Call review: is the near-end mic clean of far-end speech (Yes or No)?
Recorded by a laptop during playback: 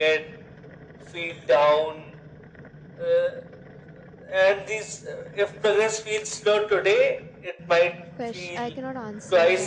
No